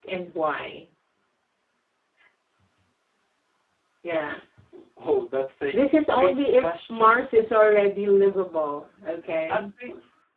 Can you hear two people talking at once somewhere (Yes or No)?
Yes